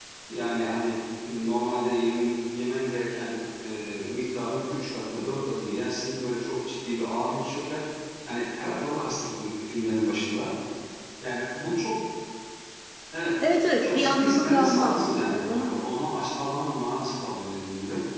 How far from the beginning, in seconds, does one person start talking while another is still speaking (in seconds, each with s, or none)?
13.8 s